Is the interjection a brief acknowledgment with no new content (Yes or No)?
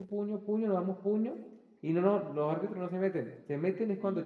Yes